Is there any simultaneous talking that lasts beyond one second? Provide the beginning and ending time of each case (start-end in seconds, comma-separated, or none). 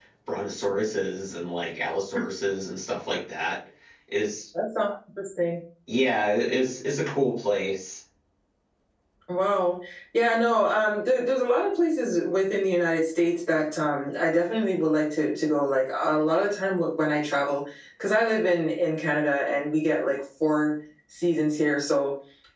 none